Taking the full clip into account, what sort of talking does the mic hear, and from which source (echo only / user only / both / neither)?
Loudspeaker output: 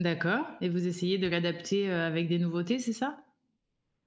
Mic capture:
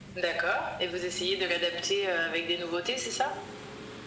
echo only